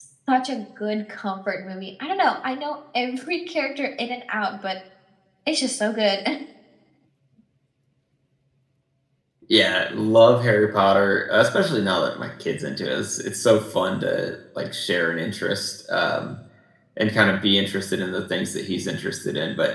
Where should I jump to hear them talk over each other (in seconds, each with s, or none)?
none